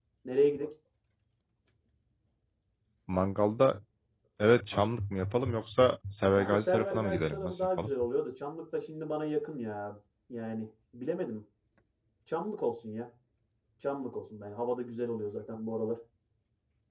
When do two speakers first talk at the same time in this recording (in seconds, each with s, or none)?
6.4 s